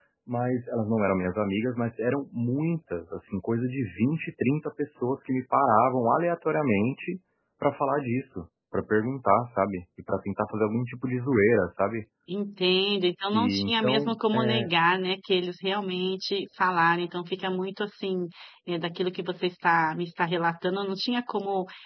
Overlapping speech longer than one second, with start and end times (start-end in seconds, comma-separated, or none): 13.3-14.7